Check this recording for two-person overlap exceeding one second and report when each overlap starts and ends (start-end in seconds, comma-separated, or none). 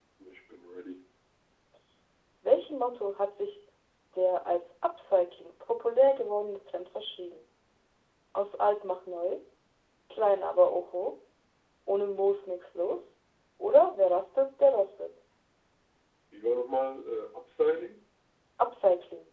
none